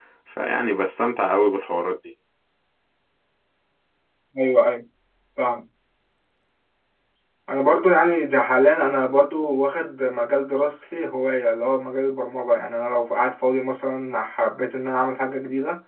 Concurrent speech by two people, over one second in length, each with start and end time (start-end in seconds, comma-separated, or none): none